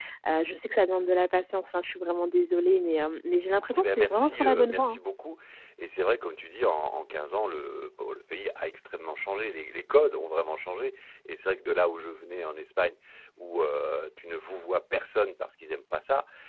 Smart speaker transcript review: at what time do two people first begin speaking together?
3.7 s

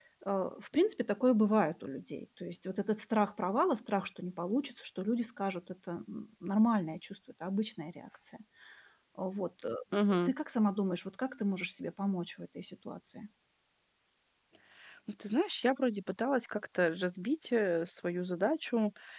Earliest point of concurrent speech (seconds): none

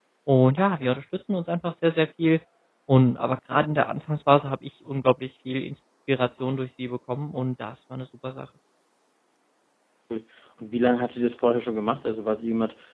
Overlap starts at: none

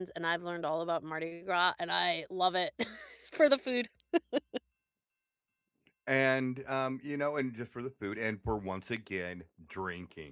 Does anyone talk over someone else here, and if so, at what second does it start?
none

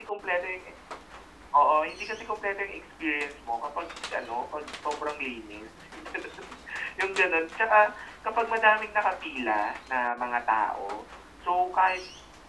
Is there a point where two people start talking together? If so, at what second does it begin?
none

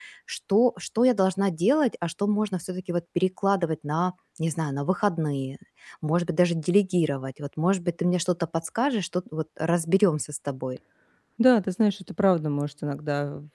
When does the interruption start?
none

